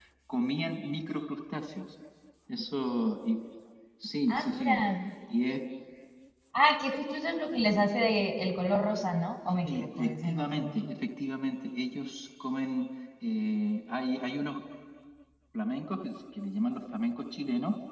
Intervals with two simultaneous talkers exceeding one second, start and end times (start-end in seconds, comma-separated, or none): 9.6-10.9